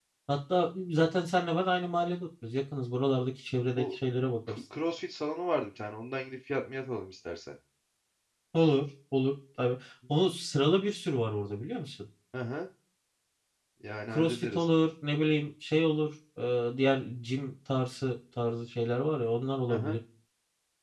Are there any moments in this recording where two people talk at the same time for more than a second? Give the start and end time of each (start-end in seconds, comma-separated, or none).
none